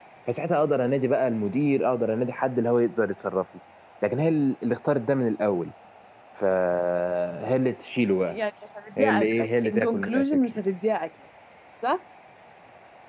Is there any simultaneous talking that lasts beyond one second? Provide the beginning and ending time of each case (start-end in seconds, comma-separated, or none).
9.0-10.6